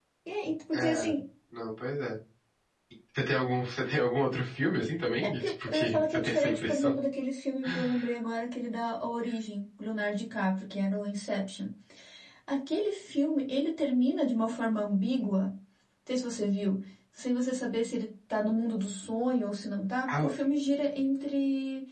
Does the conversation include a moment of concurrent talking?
Yes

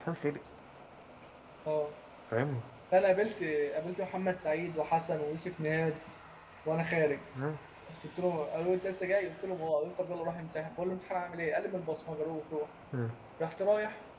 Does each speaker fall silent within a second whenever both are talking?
Yes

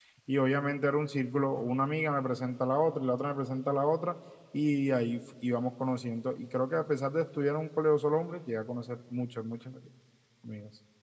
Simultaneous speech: No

